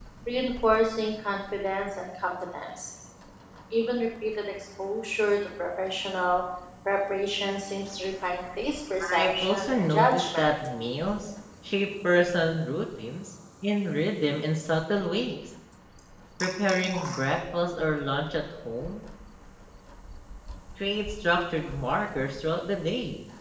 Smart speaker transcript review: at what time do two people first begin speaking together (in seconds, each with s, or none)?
9.0 s